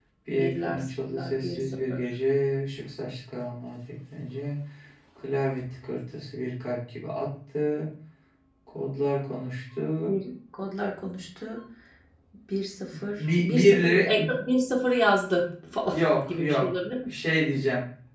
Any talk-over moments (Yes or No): Yes